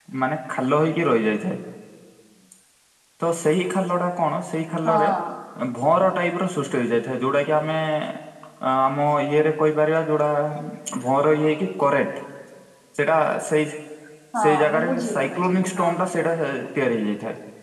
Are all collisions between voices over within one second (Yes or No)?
No